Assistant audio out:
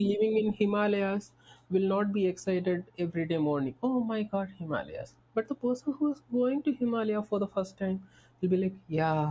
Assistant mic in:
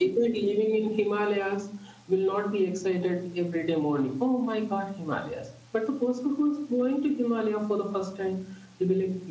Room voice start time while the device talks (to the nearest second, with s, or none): none